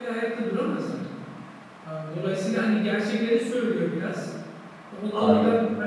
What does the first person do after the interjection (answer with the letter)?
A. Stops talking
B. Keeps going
B